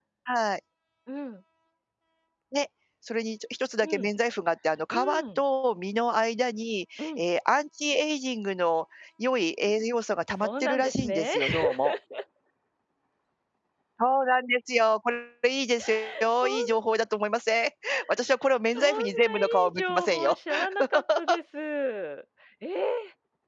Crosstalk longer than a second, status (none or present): present